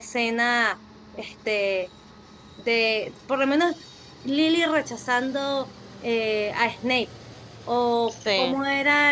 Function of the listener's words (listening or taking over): listening